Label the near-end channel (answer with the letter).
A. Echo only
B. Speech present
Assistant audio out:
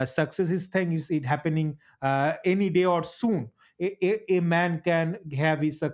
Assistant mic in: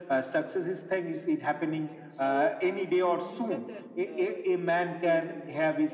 B